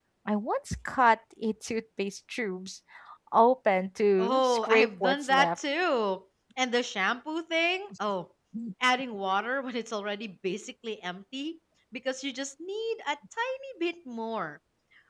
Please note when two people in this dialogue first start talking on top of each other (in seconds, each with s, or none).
4.2 s